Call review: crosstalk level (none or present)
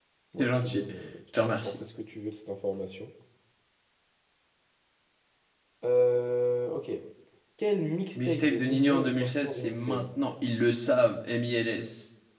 present